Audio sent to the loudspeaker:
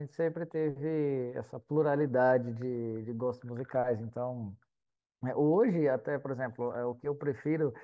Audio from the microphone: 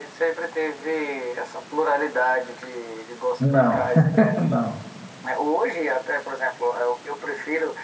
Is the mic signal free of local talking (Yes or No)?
No